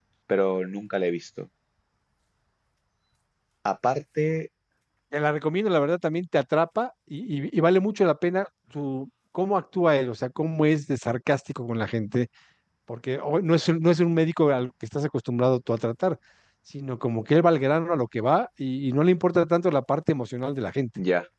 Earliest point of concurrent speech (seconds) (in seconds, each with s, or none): none